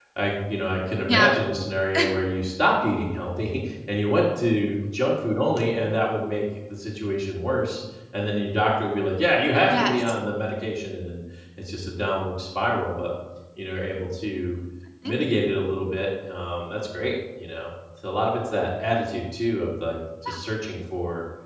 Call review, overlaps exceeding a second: none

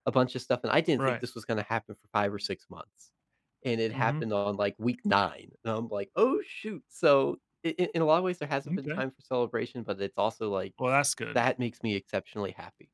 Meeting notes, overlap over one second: none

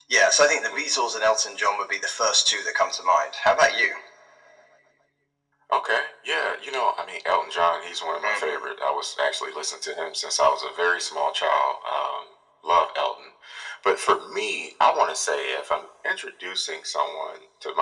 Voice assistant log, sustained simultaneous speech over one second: none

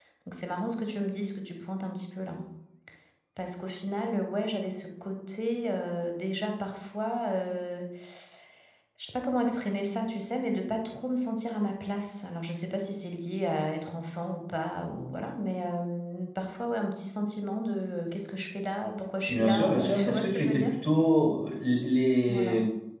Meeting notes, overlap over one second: present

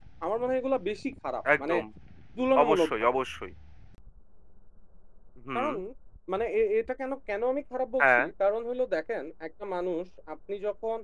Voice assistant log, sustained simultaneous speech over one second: none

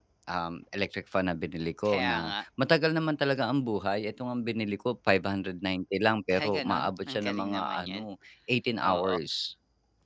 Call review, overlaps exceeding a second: present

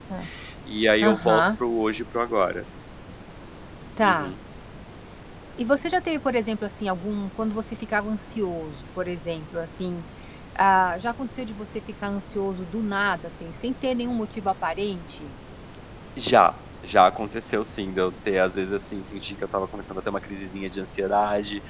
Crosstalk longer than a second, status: none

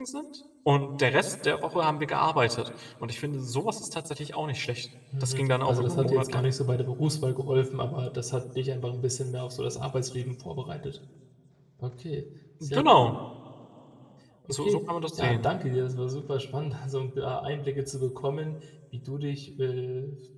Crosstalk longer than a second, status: present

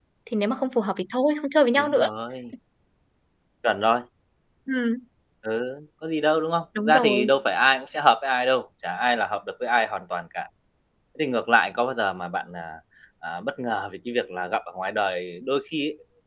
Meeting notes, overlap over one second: none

